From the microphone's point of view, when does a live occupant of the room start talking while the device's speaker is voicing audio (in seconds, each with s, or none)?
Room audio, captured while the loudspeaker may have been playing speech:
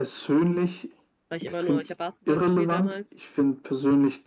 1.3 s